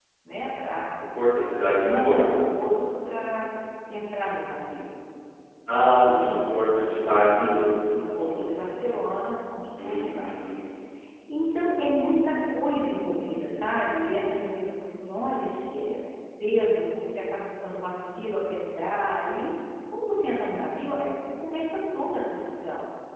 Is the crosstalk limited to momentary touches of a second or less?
No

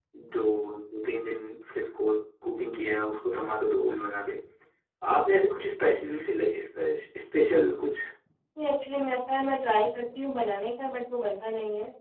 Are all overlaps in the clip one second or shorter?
Yes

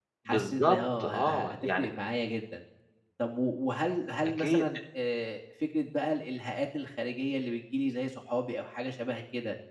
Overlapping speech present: Yes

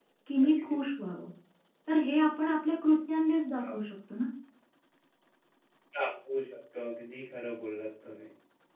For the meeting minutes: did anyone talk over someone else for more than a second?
No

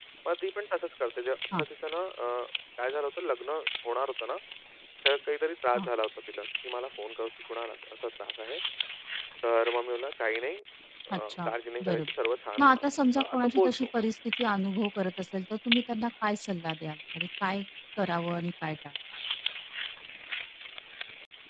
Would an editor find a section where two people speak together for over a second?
Yes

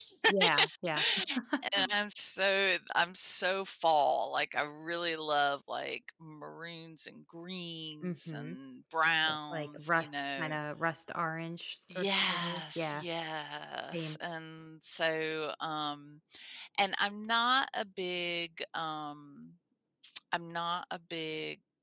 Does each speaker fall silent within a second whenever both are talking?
No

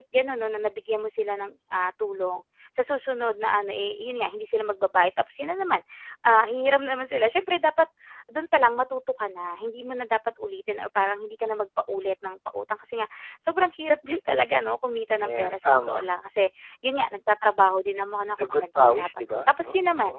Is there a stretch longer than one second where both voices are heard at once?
Yes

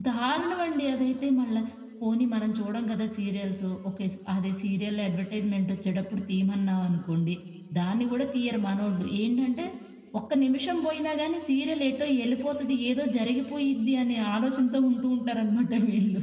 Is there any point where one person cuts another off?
No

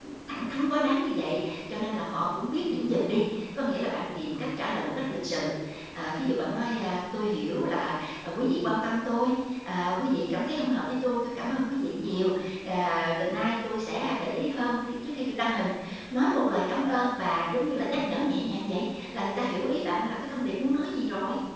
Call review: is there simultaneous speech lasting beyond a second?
No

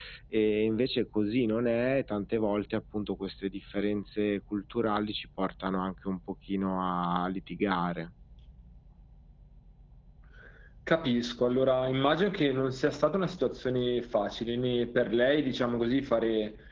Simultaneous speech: No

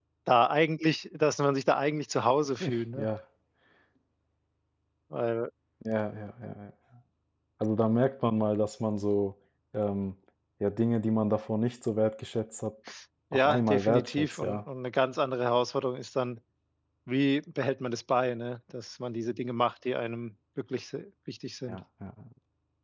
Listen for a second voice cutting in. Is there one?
Yes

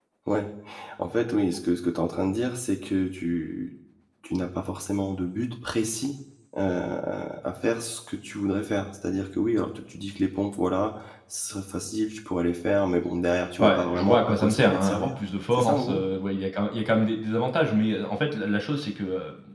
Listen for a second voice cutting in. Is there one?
Yes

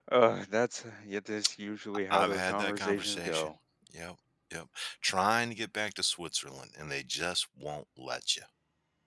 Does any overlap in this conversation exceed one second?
Yes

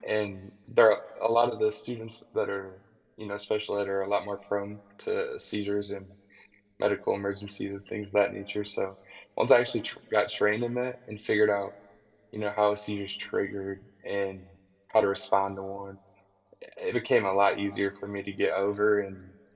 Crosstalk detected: No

